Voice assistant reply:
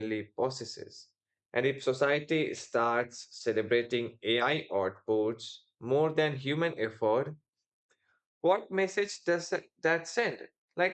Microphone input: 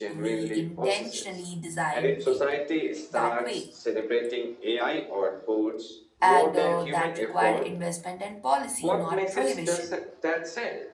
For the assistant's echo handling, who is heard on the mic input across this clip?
both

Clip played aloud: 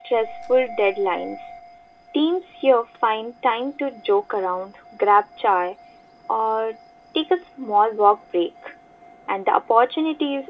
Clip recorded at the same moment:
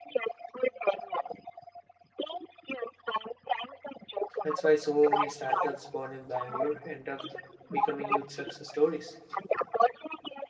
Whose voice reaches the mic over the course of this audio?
both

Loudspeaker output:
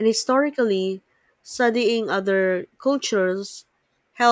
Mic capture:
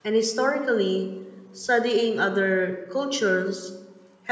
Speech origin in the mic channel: echo only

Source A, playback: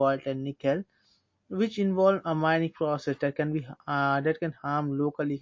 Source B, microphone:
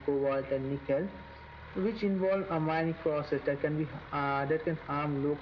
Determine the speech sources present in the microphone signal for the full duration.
echo only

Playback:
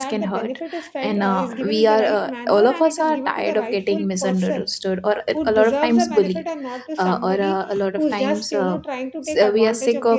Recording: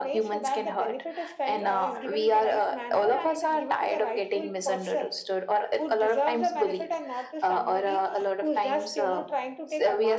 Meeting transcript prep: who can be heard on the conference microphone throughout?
echo only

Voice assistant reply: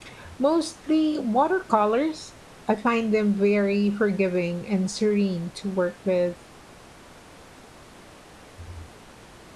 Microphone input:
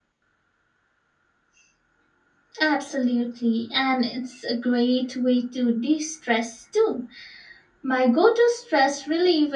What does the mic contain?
user only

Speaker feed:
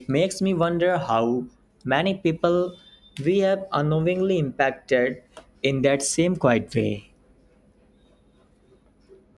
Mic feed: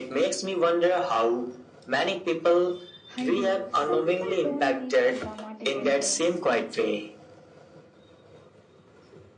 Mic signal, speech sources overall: both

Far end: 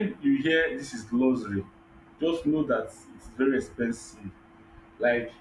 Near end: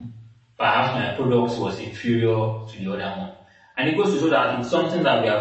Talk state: user only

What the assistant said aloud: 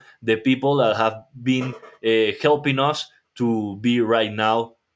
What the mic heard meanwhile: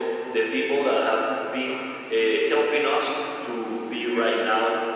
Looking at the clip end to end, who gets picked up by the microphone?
echo only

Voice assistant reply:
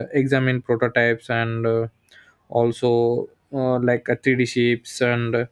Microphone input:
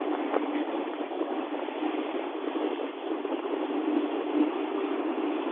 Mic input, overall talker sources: neither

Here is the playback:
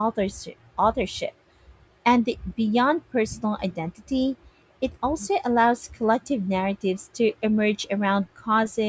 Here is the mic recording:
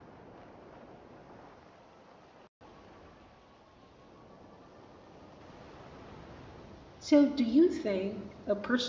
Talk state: user only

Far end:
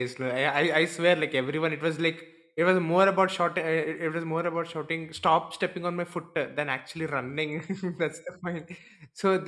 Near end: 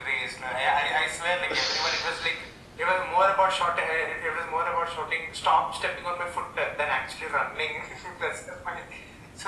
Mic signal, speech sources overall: both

